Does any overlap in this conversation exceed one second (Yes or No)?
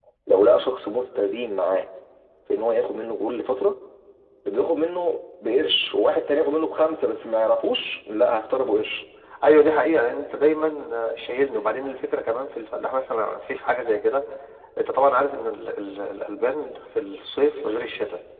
No